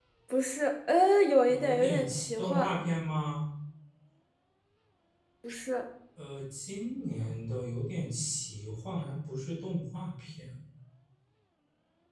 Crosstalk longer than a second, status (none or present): present